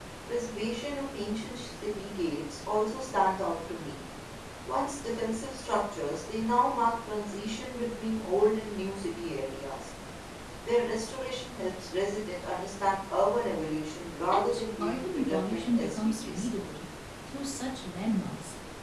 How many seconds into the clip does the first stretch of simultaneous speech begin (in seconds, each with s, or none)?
14.3 s